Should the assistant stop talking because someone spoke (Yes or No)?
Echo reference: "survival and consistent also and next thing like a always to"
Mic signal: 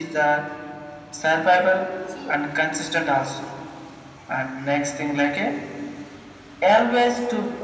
Yes